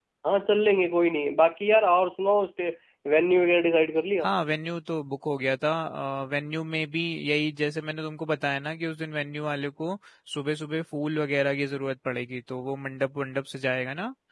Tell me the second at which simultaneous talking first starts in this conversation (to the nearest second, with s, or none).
none